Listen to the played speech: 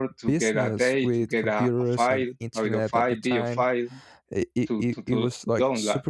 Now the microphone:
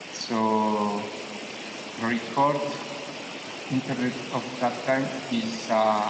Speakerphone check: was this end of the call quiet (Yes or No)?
No